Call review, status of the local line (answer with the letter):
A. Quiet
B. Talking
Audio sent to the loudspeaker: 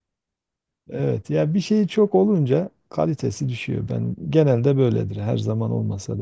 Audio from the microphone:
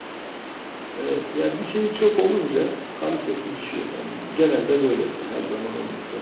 A